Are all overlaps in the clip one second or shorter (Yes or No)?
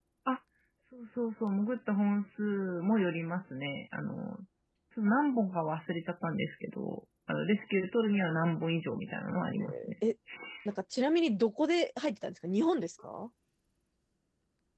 Yes